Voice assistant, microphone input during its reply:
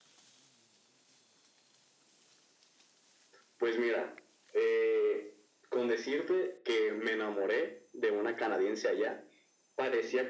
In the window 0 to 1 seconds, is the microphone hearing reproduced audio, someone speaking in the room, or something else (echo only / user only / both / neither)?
neither